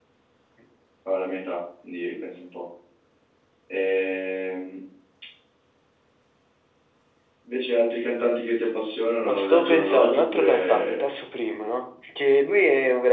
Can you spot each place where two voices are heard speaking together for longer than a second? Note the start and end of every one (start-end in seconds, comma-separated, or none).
9.2-11.1